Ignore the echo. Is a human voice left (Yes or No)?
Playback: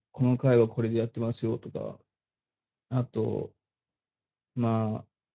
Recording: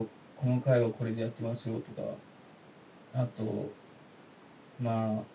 No